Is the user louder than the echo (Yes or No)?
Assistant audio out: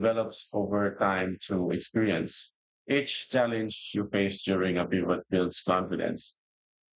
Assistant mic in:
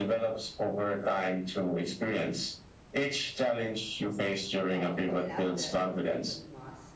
No